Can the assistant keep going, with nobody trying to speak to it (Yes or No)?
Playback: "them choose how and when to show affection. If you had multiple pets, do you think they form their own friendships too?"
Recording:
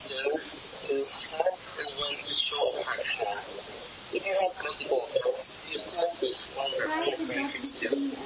No